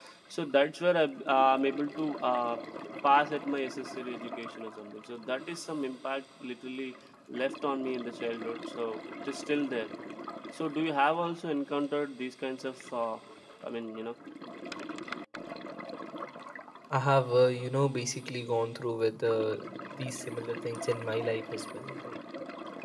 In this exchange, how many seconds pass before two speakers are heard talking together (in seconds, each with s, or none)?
none